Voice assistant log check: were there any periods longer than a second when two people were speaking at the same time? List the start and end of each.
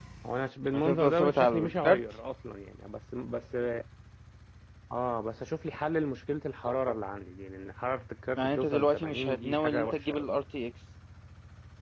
0.7-2.0, 8.4-10.3

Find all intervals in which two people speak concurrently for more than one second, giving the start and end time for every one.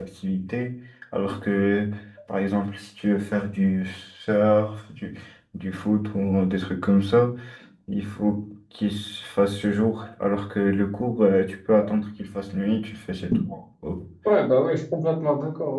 none

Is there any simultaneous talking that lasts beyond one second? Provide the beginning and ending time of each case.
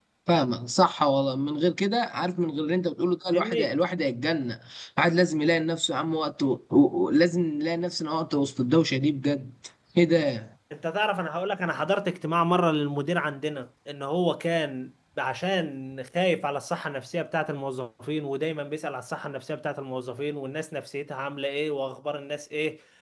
none

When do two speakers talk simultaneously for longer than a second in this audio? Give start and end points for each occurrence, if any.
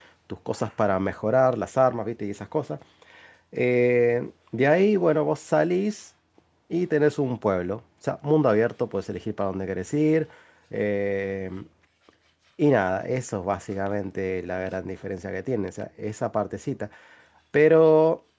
none

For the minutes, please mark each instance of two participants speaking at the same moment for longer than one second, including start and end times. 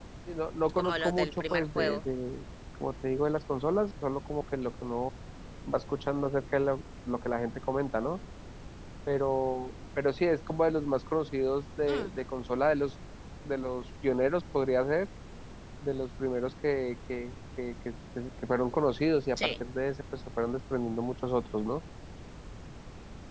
0.7-2.0

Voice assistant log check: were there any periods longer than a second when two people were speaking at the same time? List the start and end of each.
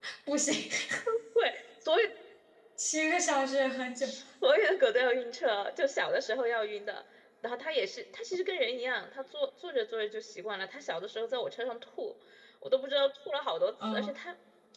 none

